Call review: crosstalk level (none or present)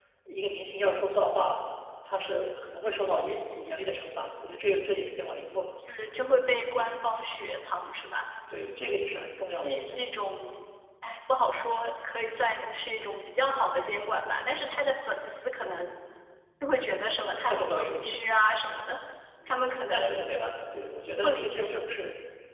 present